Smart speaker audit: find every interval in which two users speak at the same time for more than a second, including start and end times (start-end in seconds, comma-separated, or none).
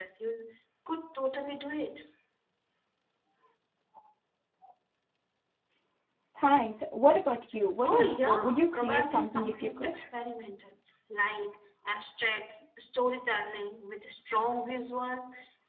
7.8-10.0